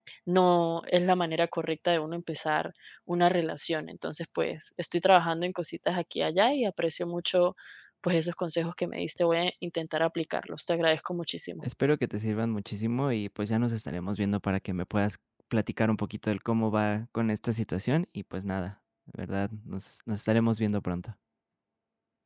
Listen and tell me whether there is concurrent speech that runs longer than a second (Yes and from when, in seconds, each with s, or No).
No